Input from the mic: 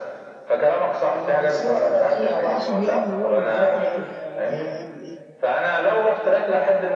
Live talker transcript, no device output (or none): اقصد يعني اللي هو يبقى الواحد عارف هو رايح هيعمل ايه